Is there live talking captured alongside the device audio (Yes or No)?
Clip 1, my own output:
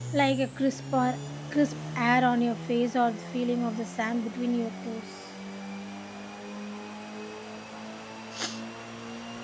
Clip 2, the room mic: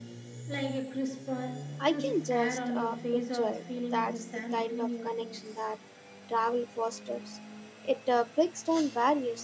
Yes